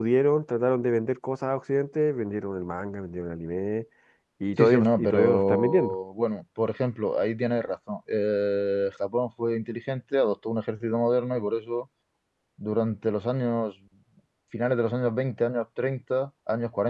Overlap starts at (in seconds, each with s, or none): 4.6 s